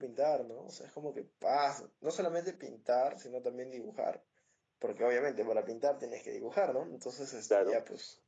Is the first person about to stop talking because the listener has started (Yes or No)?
No